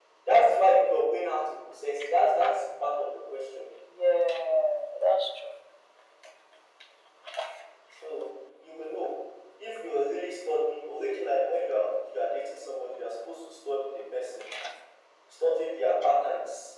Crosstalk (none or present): none